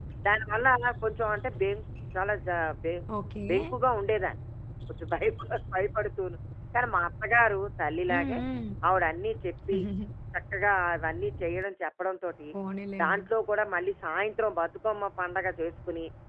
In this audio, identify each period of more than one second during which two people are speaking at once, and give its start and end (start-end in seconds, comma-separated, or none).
none